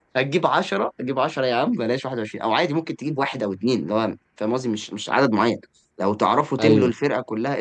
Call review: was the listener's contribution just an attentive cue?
Yes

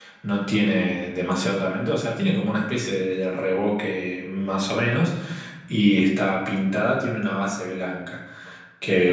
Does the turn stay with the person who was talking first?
Yes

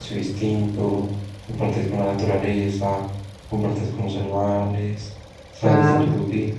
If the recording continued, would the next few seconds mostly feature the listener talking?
No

